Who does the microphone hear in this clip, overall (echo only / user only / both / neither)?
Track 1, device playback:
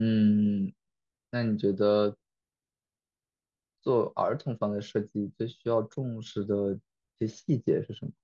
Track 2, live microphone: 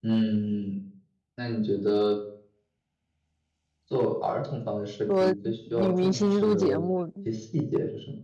both